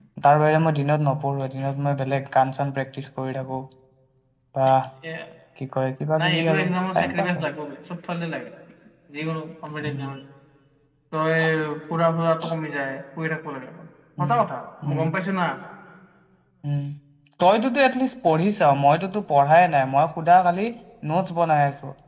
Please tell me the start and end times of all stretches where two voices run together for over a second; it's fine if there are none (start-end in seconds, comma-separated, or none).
6.2-7.5